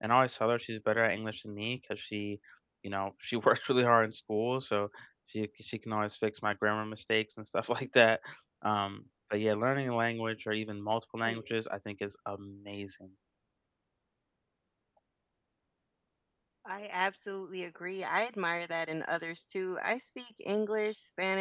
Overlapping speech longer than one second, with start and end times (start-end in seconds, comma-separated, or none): none